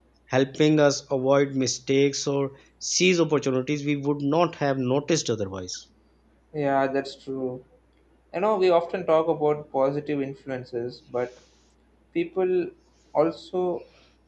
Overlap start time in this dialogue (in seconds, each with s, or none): none